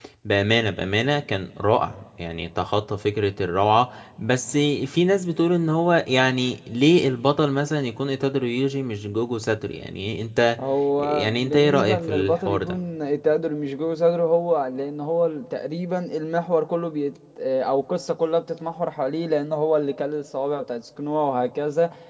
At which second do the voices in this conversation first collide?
11.0 s

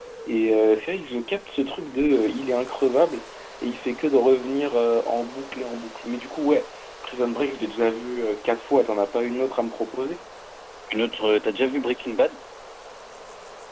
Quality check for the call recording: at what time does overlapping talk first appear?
none

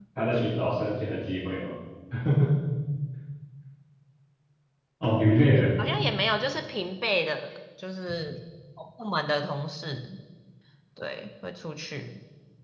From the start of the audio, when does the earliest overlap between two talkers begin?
none

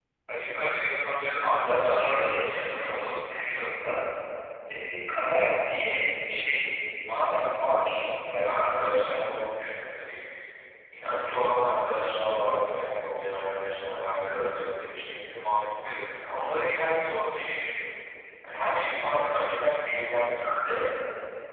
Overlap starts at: 1.4 s

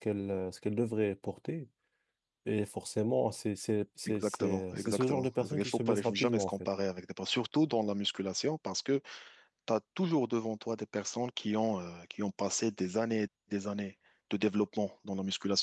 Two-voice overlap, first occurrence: 4.1 s

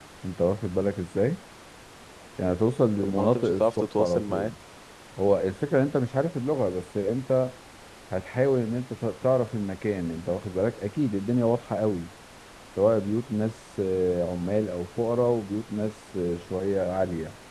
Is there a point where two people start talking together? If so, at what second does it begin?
3.0 s

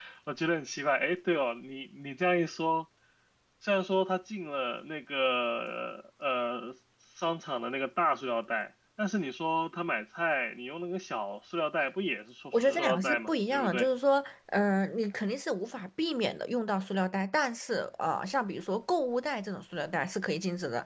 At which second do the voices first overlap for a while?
12.5 s

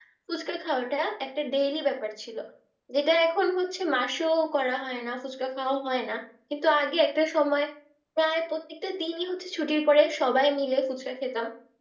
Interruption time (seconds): none

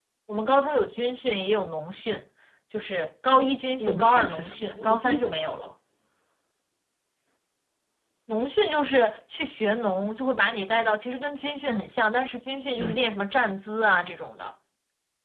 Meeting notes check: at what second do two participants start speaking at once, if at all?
3.8 s

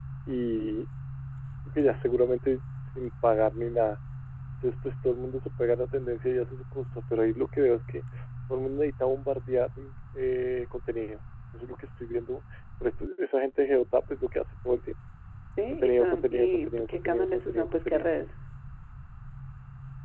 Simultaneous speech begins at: 15.7 s

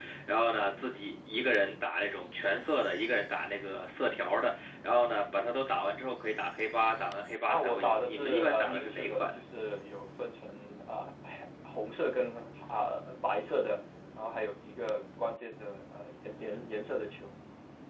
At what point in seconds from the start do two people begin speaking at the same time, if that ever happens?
7.5 s

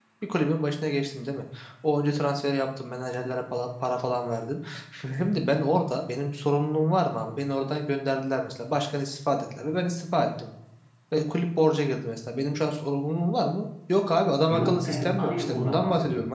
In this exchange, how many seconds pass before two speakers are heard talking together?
14.5 s

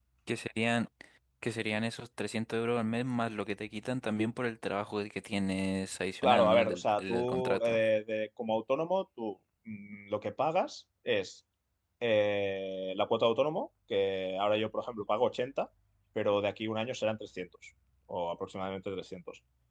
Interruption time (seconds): 6.2 s

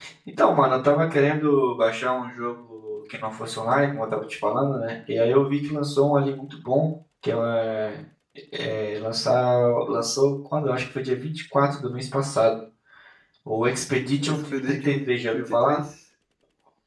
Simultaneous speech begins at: 14.2 s

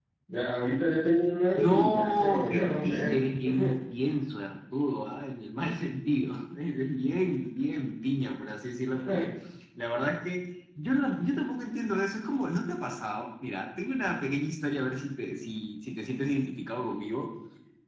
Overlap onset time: 1.6 s

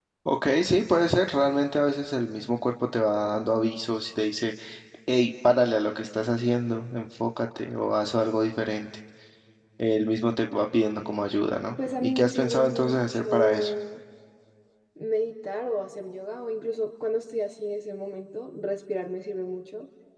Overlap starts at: 12.0 s

